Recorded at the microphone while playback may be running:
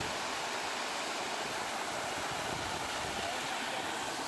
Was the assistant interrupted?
No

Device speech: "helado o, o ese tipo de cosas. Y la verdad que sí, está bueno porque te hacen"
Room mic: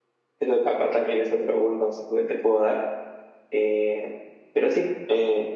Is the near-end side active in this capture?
Yes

